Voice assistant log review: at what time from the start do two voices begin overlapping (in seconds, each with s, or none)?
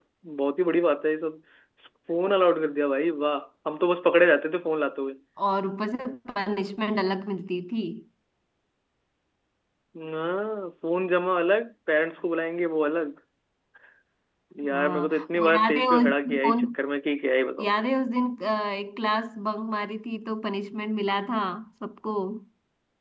14.7 s